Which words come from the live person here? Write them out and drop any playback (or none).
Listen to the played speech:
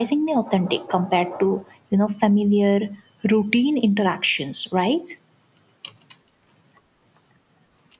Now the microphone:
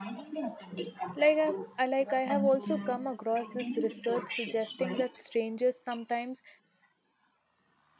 Like I, I like I have also come across this research suggesting that strangers sometimes